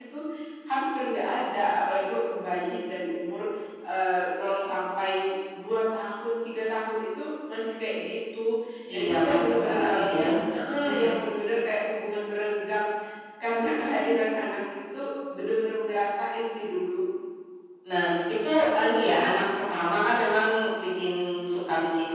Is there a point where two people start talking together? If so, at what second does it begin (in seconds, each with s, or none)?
8.9 s